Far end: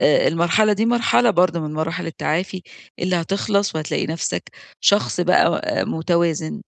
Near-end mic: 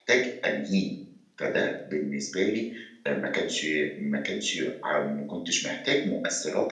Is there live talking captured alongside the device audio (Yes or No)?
Yes